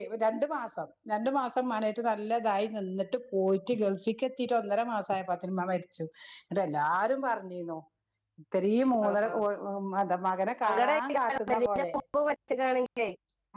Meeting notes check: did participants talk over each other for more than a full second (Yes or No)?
Yes